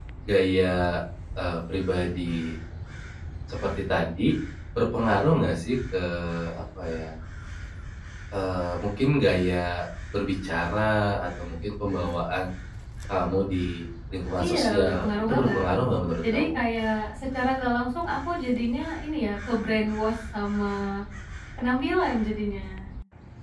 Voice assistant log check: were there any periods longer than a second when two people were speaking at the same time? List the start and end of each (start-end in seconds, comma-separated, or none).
14.4-15.7